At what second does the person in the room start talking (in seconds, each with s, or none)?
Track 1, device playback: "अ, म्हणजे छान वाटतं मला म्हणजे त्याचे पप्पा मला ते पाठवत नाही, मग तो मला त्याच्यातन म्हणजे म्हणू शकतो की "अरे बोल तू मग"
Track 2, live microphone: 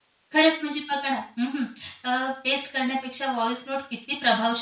0.3 s